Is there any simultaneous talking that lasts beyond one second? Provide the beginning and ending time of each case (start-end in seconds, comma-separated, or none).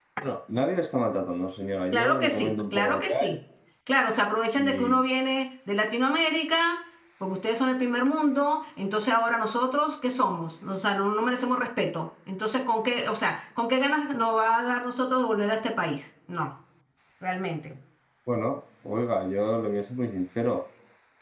1.9-3.3